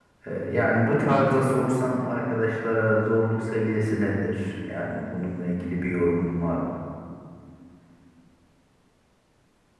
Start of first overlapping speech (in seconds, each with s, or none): none